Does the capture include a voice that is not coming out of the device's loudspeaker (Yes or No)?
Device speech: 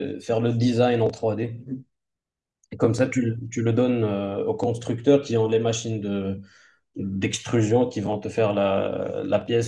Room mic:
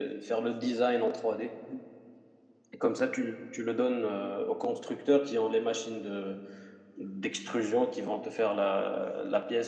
No